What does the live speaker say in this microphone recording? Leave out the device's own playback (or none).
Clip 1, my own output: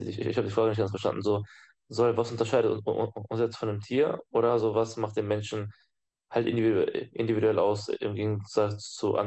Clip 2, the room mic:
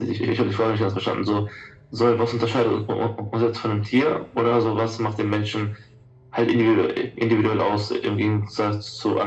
none